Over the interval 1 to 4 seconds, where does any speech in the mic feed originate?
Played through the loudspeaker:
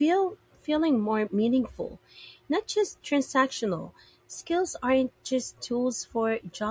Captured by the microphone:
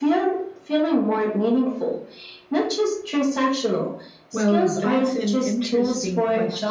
echo only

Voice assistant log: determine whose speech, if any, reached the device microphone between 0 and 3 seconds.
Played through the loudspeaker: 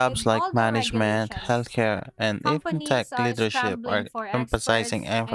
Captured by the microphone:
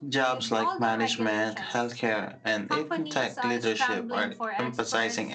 echo only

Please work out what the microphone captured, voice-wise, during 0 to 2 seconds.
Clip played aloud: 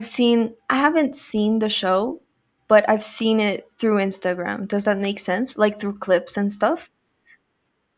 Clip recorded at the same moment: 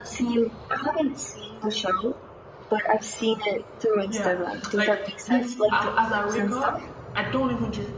echo only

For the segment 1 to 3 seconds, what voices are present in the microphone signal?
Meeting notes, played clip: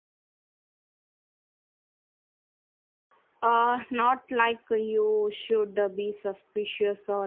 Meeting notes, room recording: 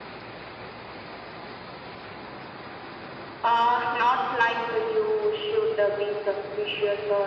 neither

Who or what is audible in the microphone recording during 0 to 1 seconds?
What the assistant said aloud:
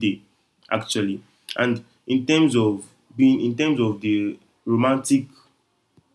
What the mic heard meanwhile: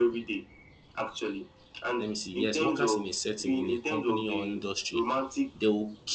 echo only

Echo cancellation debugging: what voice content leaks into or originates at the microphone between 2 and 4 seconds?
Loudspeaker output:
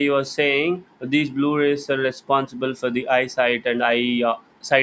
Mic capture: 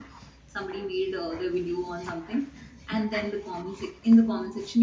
user only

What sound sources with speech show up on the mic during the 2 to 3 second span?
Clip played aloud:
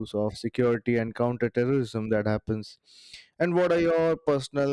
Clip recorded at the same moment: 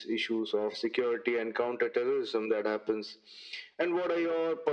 echo only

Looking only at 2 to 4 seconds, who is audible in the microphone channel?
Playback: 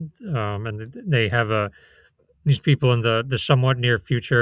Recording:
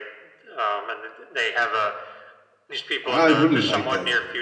both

